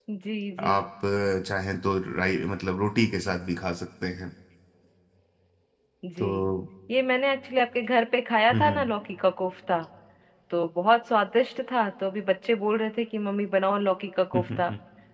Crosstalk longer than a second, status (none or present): none